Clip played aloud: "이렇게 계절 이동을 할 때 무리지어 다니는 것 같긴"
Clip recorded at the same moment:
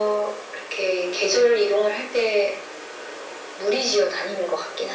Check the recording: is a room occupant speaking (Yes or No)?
No